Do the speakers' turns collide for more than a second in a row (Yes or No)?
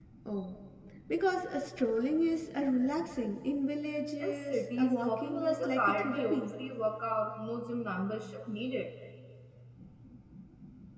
Yes